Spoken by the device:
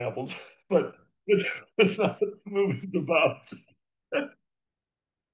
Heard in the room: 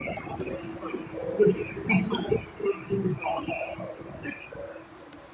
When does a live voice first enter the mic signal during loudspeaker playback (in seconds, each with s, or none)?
none